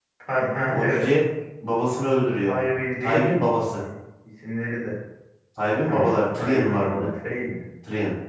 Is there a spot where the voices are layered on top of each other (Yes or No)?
Yes